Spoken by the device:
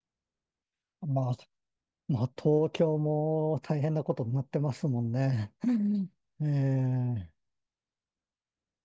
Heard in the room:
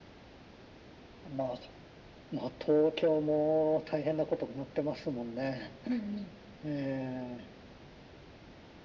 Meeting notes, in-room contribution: none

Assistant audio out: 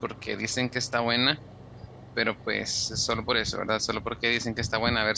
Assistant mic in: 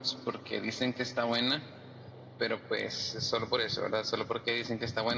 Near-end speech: none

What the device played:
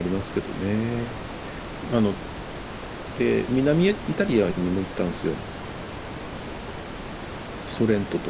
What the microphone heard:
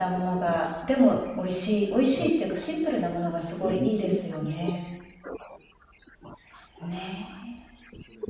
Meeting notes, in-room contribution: present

